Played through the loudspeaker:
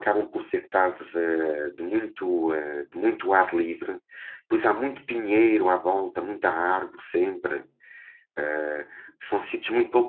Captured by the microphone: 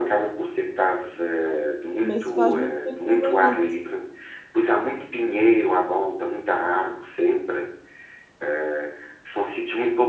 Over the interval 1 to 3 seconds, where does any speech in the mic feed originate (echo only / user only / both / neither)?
both